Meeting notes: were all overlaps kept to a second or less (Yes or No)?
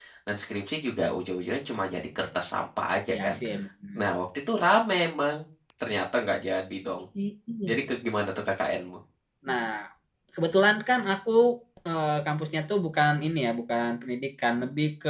Yes